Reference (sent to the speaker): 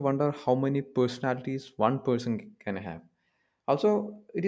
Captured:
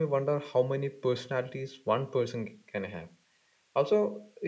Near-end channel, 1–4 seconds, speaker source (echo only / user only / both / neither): echo only